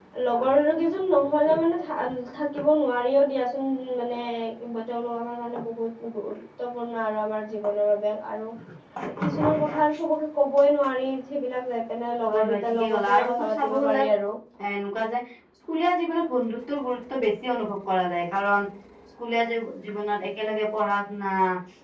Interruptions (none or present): present